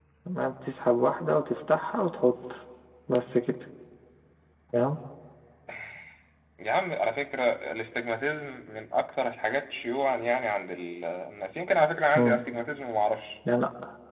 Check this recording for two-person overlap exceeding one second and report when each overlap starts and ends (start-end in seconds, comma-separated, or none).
none